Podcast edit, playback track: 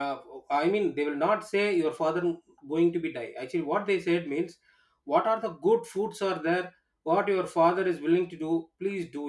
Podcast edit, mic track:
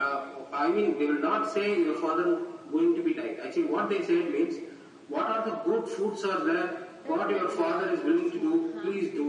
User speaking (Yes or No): Yes